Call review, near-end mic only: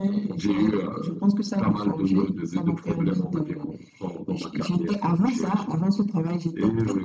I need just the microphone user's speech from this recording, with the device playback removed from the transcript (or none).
none